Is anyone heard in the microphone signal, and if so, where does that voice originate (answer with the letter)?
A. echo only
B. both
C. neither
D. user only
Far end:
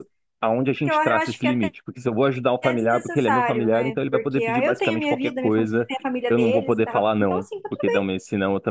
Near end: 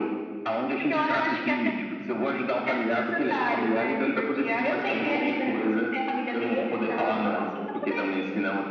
A